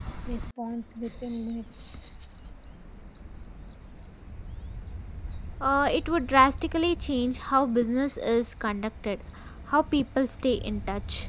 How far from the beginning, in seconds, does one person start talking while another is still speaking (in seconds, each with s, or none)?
none